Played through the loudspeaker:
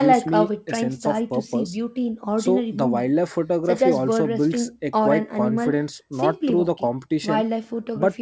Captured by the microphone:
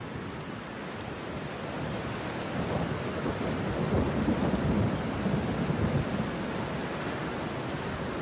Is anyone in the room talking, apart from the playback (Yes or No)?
No